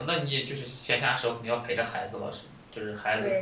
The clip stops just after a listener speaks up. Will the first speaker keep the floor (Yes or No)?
No